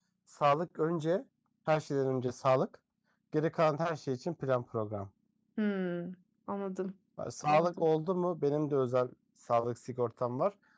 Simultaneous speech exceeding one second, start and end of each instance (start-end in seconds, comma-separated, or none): none